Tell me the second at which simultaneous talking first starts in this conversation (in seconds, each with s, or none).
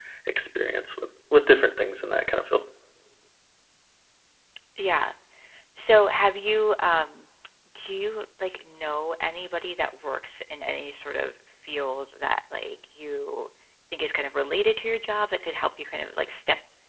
none